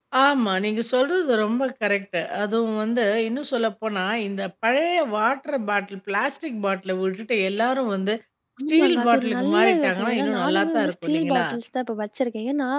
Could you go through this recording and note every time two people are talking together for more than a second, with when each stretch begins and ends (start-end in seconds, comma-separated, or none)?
8.7-11.4